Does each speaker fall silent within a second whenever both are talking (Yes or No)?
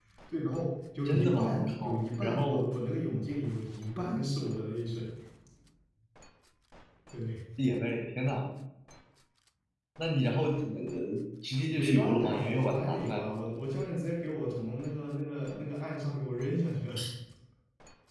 No